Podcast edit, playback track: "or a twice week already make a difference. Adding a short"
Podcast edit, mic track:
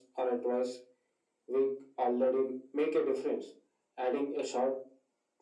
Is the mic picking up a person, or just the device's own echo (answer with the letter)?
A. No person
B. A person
A